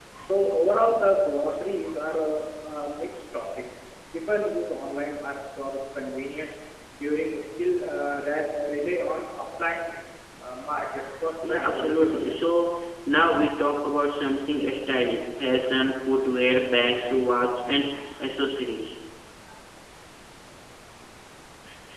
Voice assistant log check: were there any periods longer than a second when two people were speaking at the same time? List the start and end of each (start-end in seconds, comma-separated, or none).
11.4-12.7